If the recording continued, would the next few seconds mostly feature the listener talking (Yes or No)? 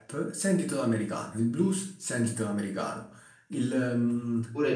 Yes